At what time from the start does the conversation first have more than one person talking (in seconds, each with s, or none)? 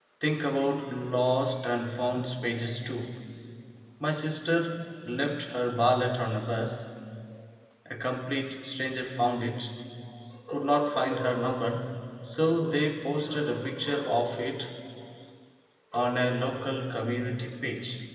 none